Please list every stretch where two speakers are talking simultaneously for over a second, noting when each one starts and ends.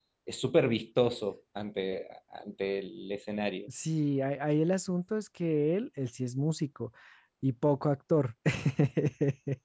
none

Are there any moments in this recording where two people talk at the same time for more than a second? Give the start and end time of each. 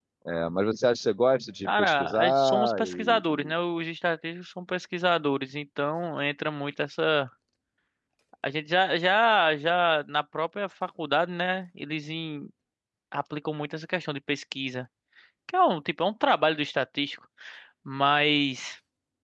1.6-3.5

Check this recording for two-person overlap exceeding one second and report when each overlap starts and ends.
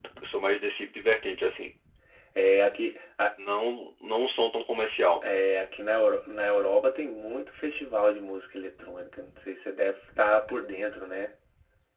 none

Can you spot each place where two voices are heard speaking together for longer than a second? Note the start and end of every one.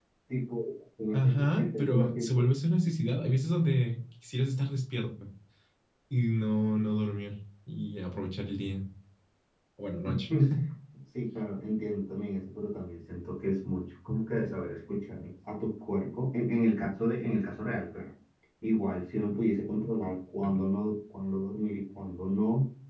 1.1-2.4

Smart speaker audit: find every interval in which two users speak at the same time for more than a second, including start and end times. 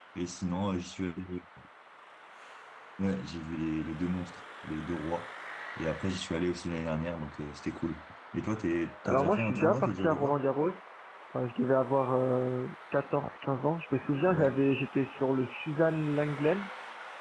9.0-10.4

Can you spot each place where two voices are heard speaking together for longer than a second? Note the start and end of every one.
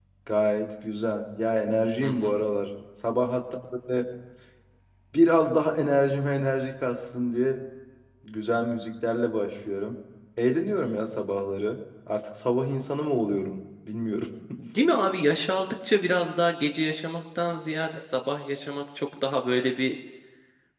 none

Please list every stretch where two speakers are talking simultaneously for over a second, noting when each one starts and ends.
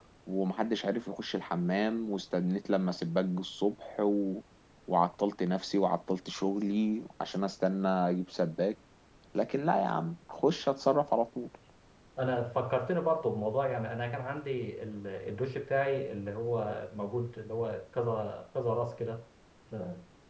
none

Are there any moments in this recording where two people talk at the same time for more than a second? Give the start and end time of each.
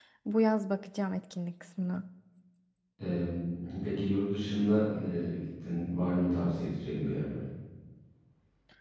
none

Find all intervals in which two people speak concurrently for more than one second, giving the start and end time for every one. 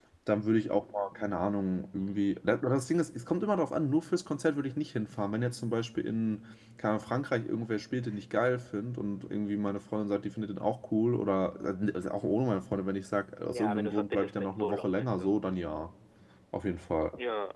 13.5-15.3

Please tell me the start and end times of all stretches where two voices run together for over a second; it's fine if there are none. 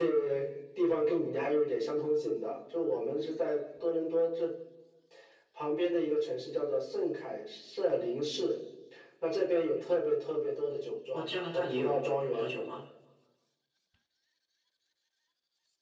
11.1-12.5

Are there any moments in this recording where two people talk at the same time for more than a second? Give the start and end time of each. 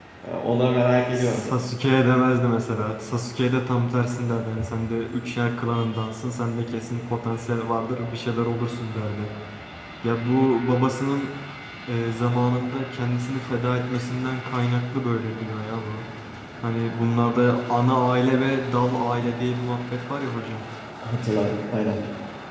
none

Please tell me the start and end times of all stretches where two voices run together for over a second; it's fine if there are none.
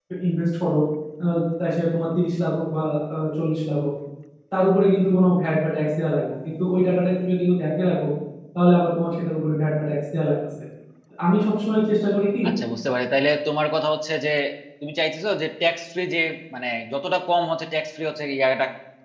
none

